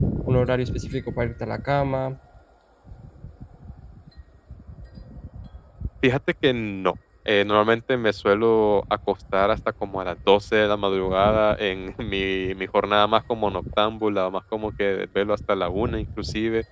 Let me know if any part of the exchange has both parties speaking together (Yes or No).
No